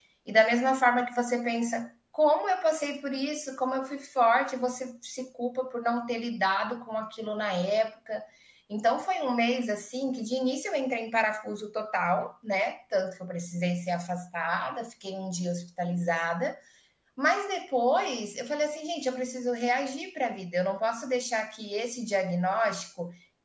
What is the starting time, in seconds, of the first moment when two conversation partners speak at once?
none

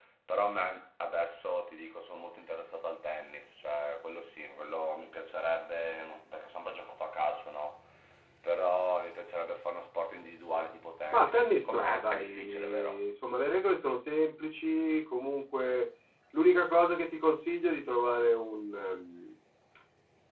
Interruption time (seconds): 11 s

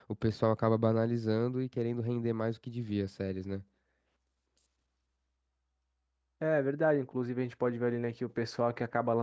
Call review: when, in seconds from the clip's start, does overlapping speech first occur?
none

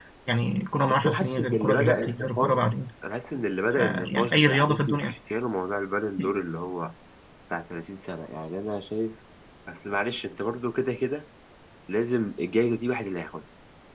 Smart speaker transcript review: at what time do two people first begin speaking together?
1 s

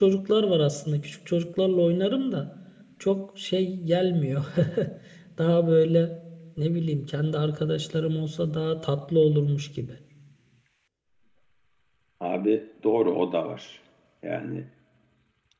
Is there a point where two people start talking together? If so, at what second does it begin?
none

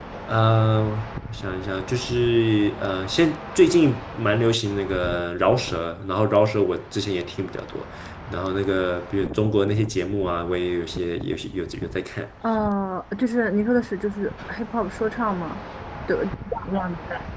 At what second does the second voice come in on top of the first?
none

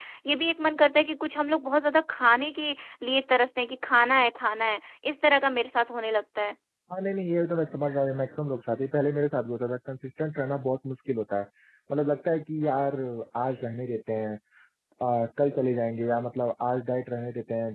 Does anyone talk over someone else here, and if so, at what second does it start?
none

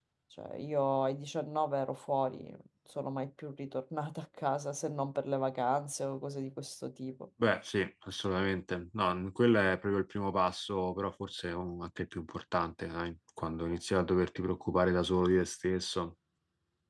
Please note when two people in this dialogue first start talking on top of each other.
none

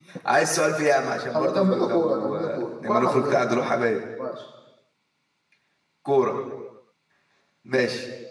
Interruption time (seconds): 1 s

